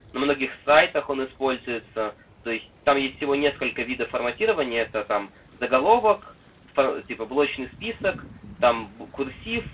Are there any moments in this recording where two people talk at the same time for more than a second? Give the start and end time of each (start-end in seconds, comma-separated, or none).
none